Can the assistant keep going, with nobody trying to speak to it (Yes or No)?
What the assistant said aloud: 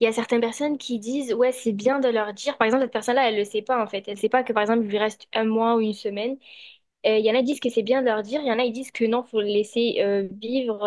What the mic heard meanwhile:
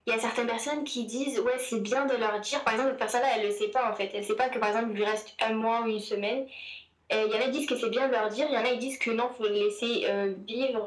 Yes